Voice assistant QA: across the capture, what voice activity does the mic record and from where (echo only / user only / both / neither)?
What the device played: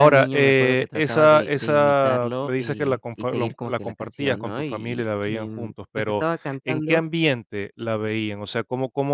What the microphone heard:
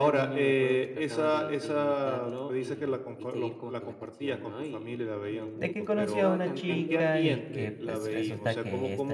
both